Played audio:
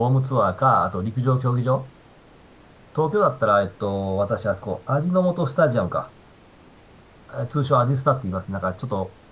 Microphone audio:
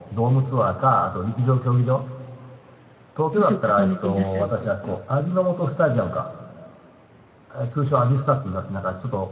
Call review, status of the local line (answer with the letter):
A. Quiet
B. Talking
B